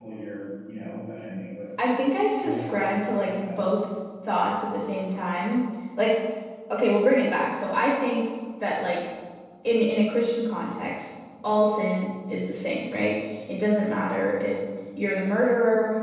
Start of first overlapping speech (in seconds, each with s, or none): 2.4 s